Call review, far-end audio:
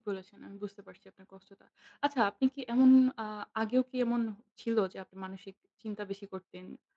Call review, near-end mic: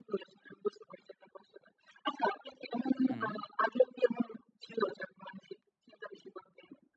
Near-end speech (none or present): present